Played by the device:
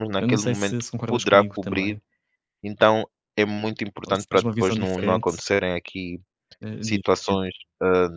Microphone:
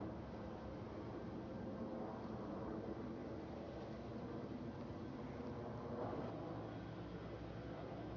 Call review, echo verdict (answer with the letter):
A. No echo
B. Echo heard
A